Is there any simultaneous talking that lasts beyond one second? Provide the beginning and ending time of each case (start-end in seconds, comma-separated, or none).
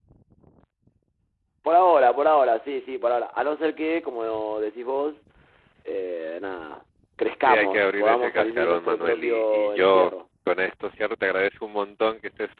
7.4-10.1